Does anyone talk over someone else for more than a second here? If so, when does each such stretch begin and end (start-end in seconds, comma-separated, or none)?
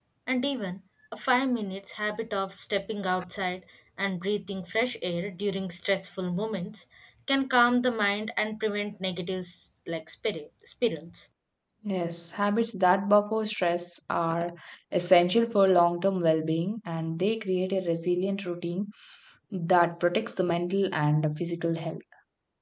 none